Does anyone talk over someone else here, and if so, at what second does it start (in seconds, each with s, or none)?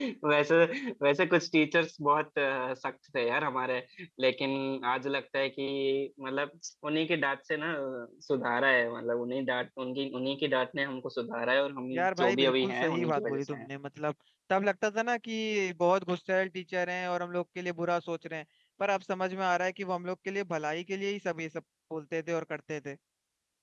11.9 s